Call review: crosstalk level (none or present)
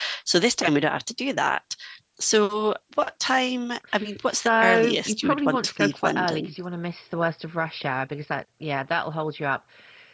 present